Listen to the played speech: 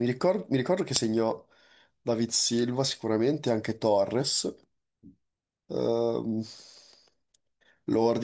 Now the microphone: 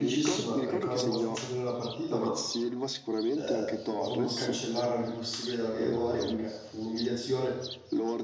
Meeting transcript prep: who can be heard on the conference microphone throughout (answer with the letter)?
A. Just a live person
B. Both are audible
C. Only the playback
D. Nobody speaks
B